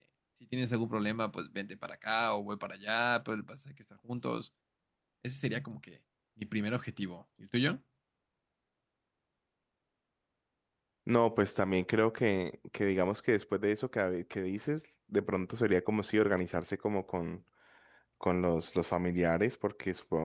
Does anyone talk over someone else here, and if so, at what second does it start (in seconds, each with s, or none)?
none